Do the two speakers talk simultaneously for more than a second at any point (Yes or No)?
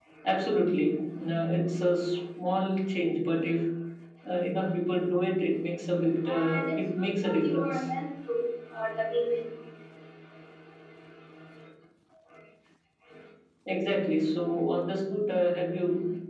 Yes